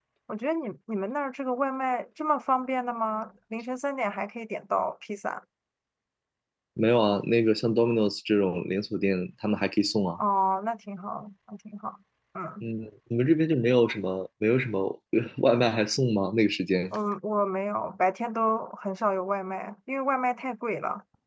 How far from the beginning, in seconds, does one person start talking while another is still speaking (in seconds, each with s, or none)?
none